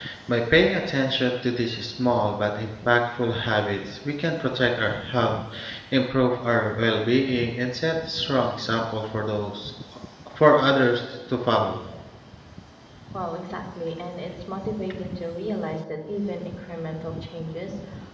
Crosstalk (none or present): none